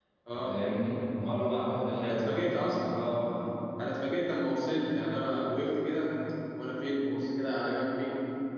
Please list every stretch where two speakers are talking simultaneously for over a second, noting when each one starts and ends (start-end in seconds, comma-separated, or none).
none